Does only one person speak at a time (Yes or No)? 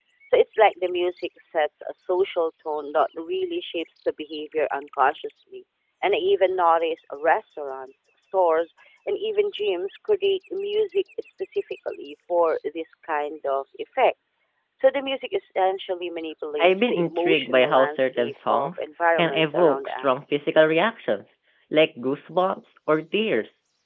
No